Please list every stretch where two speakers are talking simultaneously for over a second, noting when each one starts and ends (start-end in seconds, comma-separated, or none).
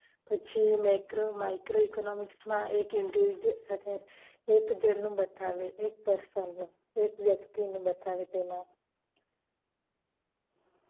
none